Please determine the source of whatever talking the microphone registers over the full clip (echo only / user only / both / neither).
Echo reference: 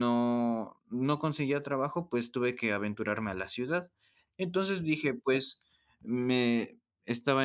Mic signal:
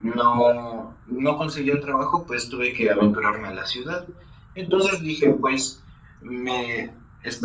echo only